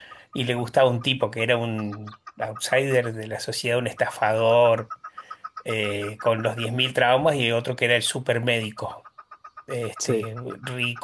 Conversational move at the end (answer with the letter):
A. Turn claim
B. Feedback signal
B